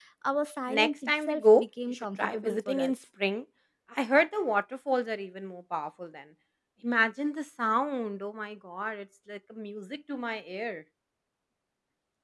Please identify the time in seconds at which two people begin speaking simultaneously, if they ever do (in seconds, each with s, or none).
0.7 s